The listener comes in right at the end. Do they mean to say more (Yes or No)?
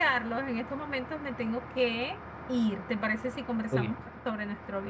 No